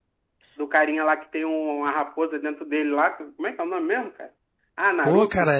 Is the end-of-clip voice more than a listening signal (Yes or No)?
Yes